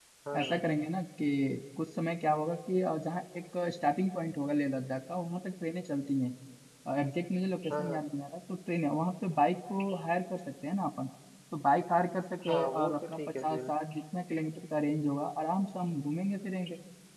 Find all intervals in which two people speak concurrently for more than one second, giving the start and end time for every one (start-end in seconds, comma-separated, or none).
12.5-13.7